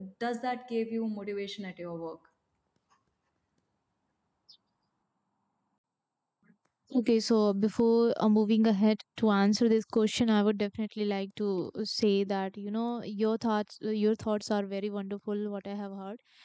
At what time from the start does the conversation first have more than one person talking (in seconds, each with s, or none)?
none